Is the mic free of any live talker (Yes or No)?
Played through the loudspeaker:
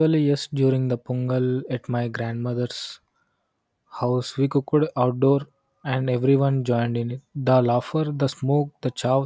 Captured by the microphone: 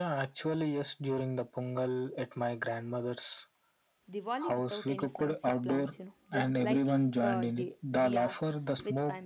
No